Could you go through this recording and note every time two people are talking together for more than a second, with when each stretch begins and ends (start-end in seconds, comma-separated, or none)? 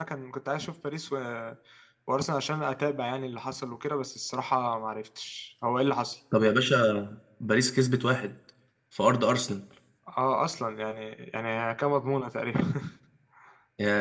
none